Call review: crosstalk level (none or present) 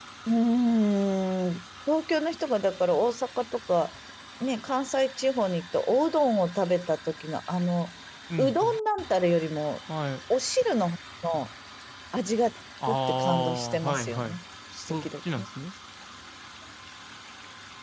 present